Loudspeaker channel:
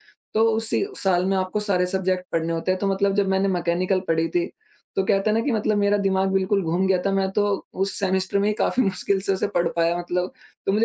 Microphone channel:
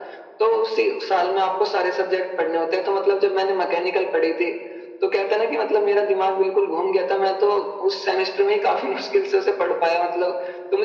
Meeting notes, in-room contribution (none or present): none